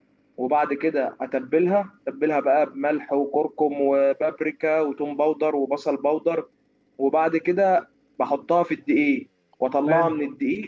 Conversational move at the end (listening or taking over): listening